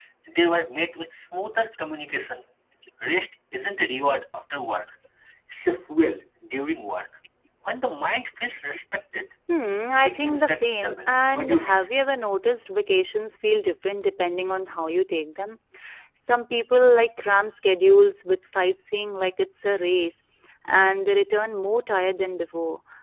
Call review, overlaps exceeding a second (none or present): present